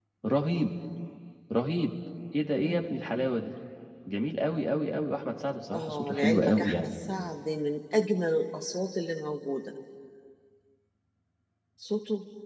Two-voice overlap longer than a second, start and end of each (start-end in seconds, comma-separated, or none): 5.7-6.9